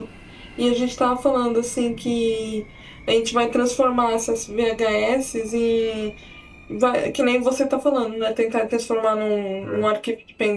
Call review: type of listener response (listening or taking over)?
listening